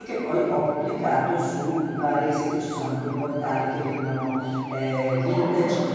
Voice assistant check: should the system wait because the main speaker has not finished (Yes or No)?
Yes